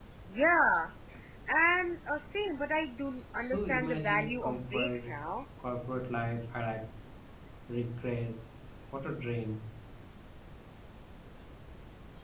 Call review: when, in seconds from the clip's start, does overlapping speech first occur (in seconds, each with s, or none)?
3.4 s